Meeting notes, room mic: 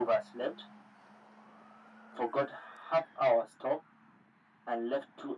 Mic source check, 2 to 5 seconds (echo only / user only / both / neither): echo only